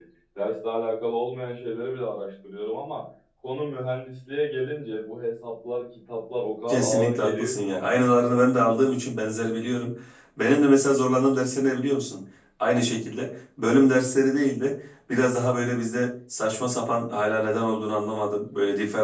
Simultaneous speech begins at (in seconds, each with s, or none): 6.7 s